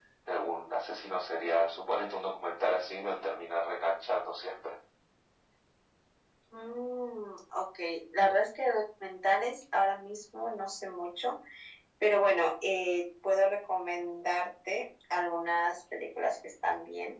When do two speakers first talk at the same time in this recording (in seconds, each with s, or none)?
none